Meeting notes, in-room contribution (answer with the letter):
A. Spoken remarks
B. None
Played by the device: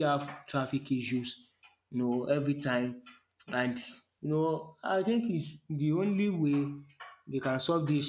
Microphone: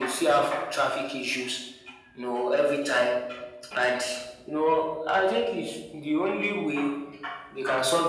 B